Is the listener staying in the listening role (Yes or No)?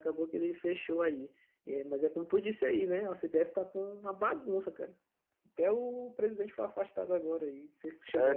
No